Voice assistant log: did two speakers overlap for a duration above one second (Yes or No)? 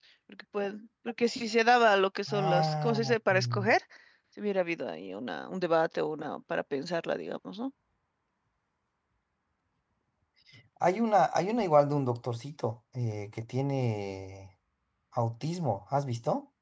Yes